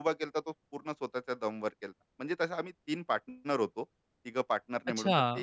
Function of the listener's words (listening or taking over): taking over